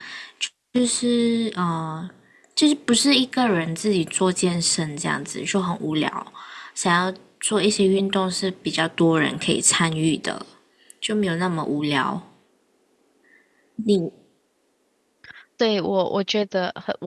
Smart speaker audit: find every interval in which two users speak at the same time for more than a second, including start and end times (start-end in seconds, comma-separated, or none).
none